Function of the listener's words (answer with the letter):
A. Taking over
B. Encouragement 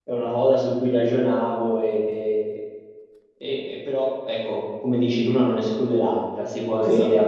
B